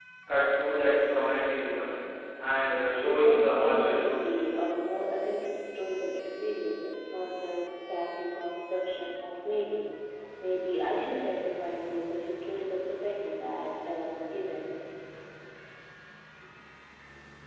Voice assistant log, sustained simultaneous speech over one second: present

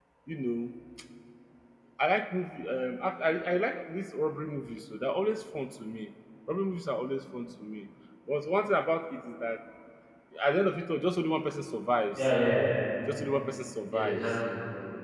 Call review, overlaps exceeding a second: none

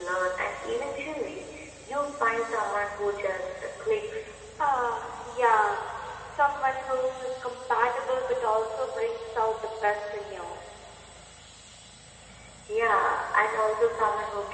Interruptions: none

